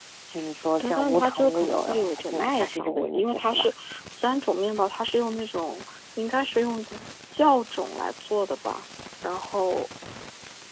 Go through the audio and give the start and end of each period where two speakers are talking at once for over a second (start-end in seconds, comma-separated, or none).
0.8-3.7